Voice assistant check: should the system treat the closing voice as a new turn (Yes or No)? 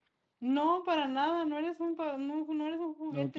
Yes